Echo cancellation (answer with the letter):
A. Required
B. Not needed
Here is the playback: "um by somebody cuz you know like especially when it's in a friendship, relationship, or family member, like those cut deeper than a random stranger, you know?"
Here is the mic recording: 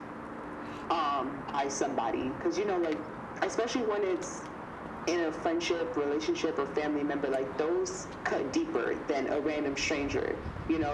A